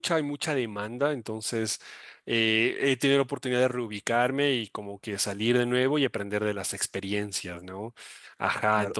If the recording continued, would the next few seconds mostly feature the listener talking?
Yes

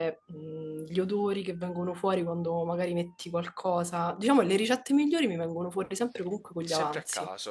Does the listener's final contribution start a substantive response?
Yes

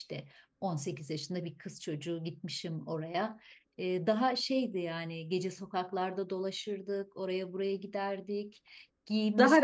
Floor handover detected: No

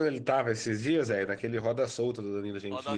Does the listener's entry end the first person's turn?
Yes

